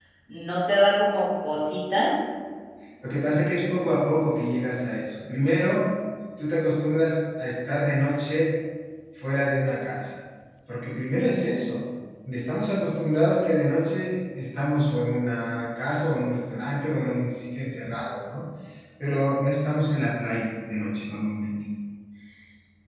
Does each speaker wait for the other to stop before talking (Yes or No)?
Yes